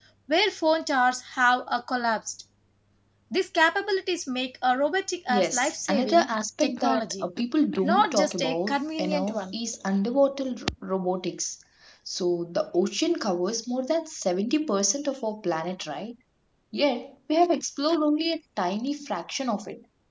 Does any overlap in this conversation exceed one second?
Yes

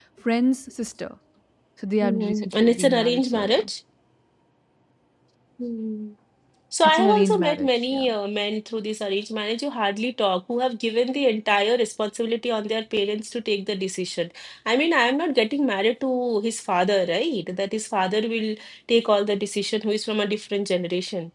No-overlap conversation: No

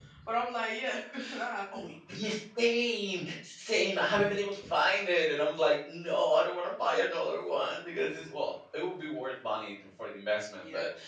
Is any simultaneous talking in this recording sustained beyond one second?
No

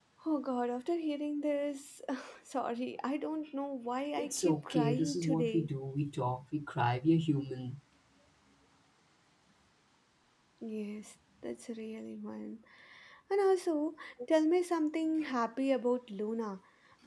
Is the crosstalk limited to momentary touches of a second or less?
No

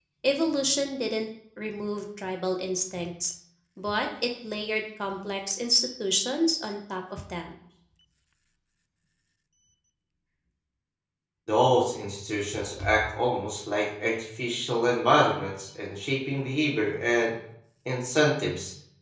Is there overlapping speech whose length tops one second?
No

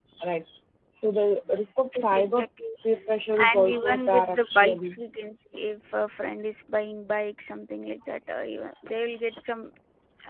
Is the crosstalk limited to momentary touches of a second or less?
No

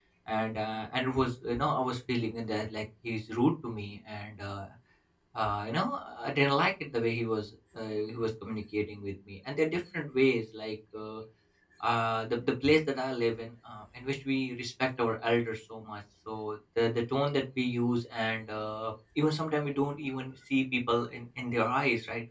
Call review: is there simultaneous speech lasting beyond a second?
No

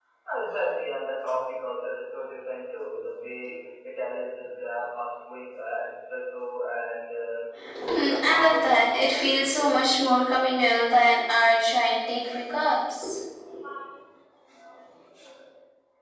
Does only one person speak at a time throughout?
No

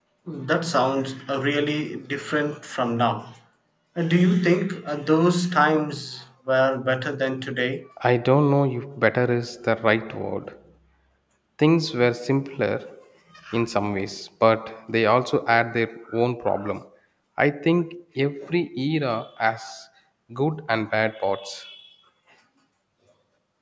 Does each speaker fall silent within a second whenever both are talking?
Yes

